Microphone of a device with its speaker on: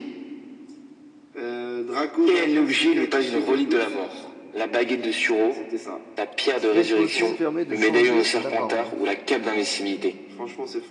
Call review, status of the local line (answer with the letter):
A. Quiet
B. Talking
B